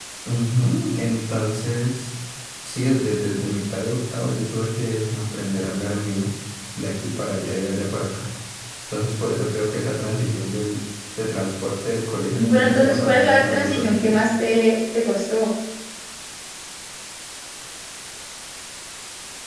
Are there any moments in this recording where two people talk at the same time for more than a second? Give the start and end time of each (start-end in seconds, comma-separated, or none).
12.5-14.2